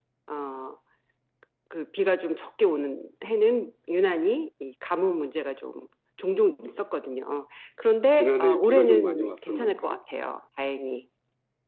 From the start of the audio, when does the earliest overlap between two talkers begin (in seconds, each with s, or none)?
8.2 s